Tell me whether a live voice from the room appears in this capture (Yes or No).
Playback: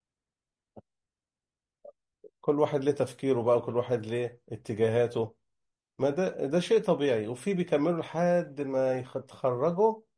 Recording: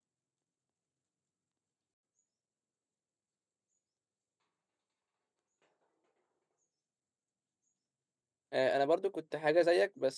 Yes